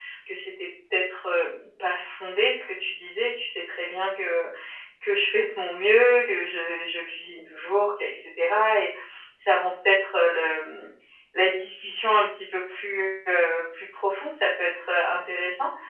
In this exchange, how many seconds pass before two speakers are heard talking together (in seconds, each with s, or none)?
none